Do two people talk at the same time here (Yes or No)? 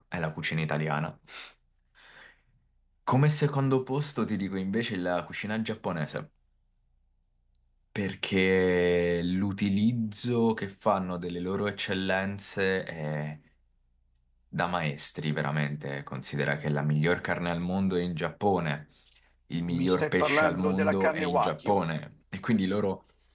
Yes